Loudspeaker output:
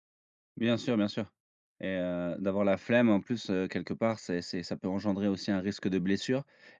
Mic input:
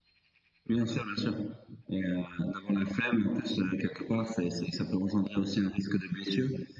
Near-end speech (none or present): none